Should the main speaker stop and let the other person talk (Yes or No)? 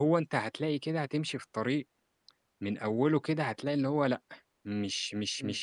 No